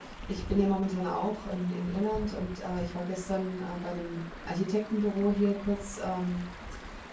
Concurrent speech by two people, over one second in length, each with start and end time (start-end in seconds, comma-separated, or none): none